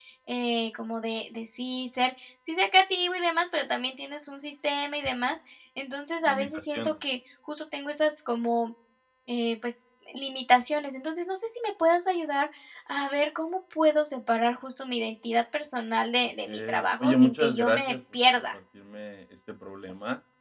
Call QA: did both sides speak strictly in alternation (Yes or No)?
No